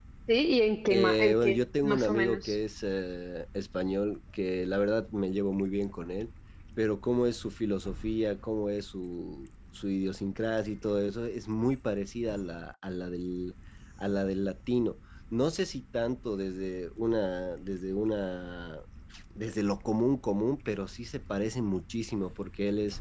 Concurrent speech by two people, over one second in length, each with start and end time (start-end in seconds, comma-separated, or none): 0.9-2.6